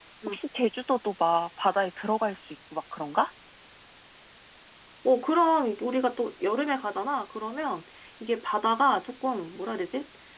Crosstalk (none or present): none